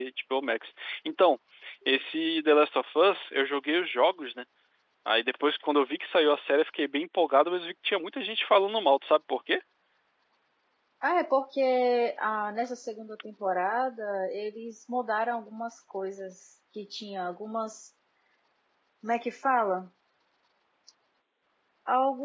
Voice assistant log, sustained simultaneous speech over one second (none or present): none